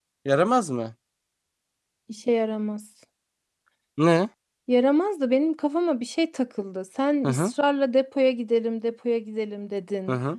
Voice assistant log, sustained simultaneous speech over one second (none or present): none